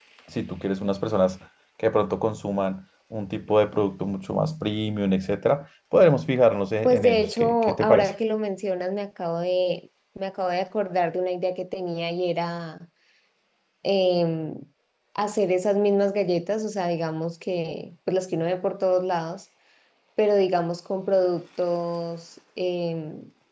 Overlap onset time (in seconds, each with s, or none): 6.8 s